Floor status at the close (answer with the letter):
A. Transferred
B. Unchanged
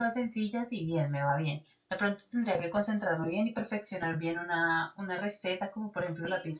B